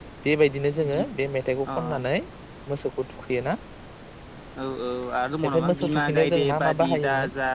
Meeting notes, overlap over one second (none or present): present